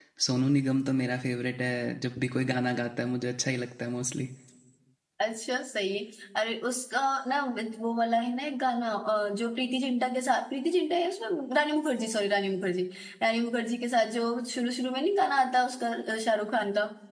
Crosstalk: none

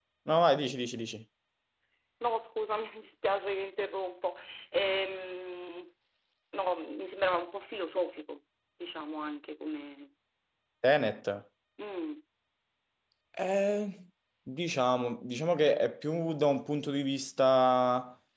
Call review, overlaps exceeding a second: none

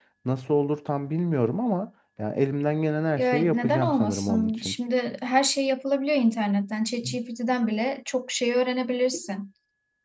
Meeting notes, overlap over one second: present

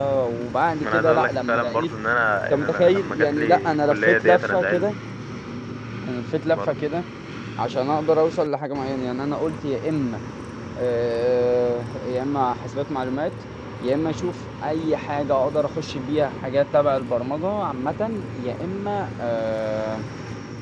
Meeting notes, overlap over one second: present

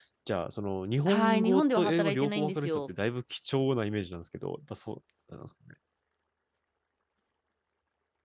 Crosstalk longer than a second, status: present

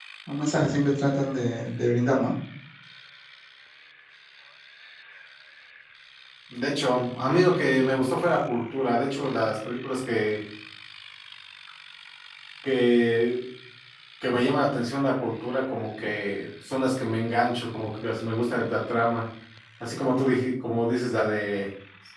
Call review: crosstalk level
none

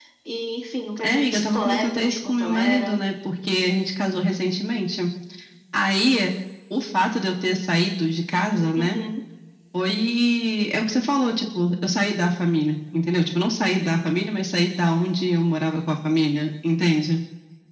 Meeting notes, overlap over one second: present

